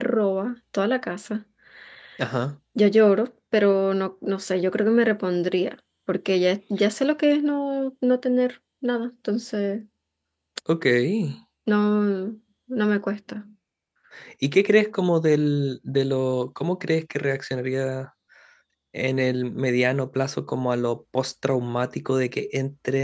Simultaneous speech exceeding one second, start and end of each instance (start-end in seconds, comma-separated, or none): none